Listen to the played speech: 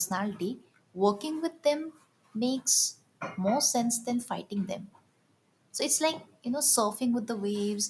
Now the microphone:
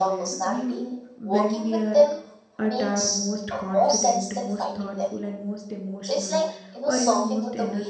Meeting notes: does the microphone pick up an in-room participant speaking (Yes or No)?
Yes